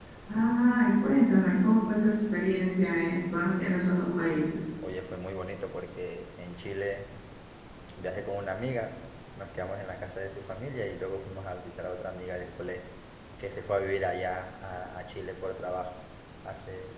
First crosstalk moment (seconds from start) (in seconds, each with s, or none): none